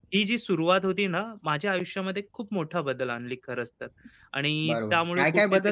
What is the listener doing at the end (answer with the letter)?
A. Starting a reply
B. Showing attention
A